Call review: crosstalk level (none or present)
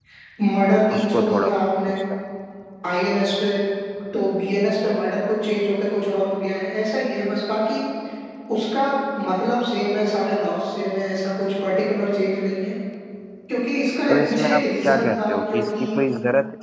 present